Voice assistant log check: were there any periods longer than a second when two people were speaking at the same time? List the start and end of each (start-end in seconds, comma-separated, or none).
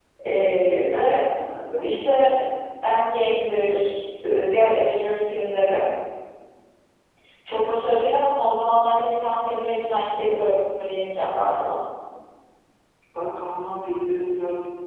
none